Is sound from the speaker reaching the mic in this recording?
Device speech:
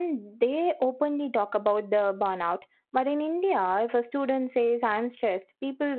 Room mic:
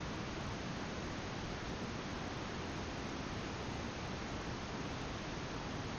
No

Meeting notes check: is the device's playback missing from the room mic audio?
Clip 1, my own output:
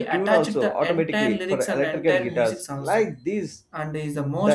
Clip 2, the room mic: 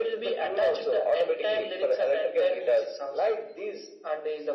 No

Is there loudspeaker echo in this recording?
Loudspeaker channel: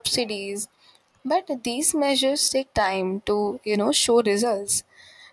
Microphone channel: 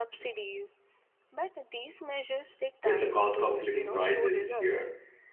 Yes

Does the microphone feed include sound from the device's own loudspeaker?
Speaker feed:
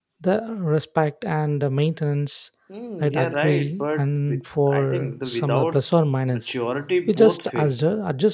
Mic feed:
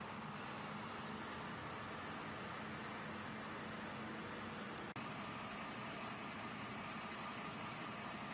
No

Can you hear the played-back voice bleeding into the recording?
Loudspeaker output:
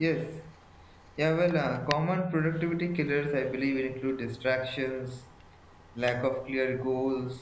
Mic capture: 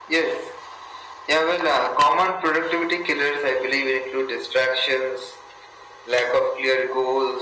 Yes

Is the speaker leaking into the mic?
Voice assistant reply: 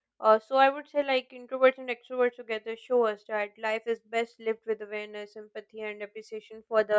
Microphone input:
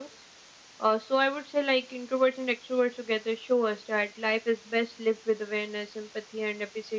Yes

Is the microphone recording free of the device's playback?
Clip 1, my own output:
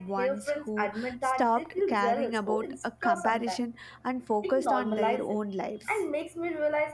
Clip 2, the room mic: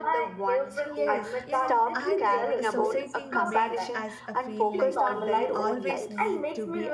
No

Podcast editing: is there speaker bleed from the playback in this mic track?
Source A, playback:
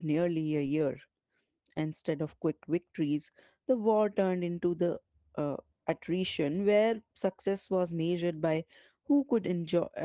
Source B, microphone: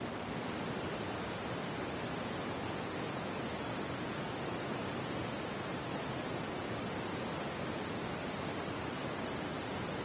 No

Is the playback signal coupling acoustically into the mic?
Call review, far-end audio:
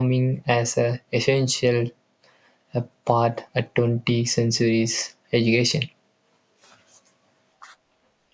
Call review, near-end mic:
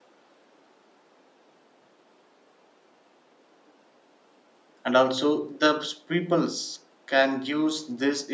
No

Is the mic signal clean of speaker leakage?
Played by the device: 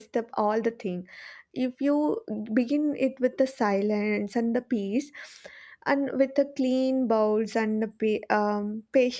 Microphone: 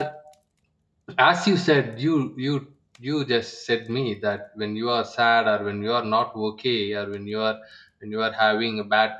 Yes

